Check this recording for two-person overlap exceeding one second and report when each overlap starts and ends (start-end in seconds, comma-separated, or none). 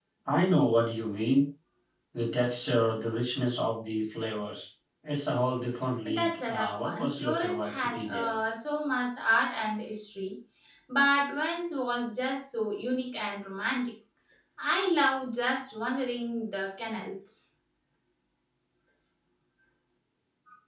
6.0-8.4